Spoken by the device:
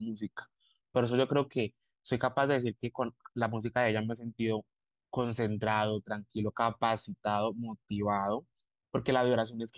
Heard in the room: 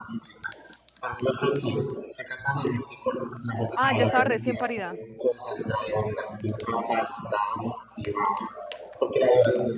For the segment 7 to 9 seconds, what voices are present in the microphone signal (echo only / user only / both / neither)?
echo only